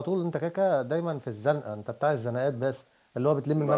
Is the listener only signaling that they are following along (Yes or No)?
Yes